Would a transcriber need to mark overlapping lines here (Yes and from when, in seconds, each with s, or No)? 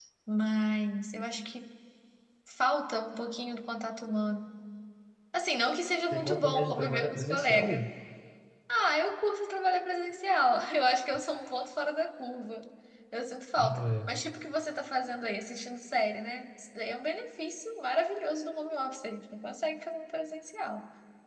Yes, from 6.1 s